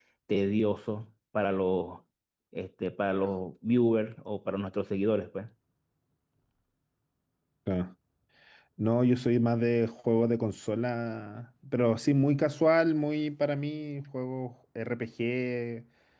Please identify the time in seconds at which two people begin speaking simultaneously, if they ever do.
none

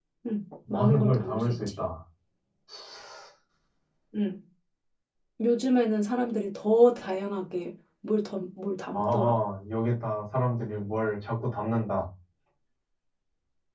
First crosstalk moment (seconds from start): 0.7 s

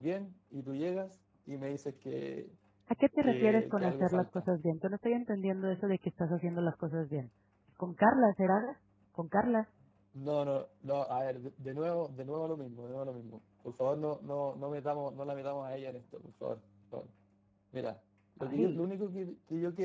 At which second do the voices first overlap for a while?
3.2 s

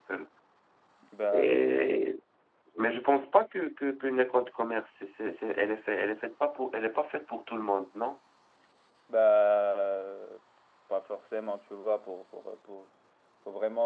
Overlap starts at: none

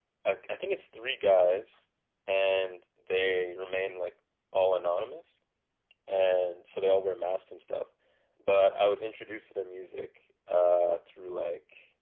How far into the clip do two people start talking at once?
none

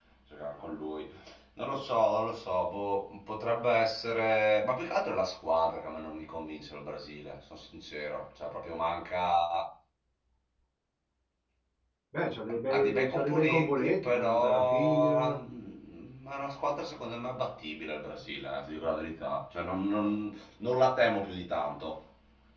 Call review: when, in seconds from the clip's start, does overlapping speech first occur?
12.7 s

